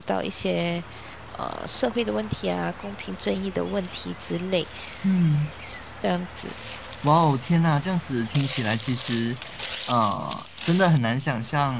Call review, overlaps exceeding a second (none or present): none